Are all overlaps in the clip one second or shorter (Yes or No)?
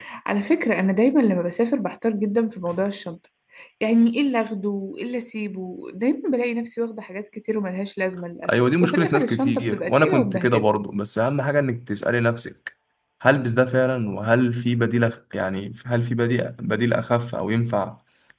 No